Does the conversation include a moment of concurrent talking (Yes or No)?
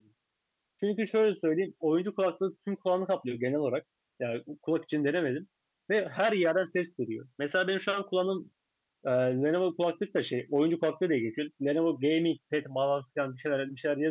No